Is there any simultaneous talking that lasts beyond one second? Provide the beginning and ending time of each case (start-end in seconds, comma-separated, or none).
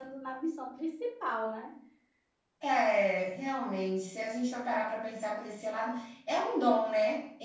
none